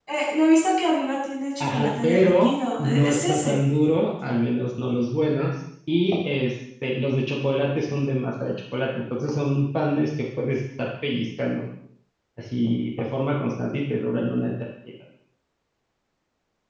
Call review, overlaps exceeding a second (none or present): present